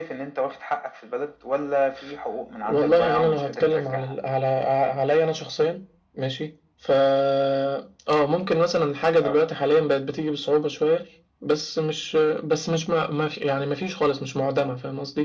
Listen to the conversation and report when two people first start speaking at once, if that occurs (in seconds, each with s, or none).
2.6 s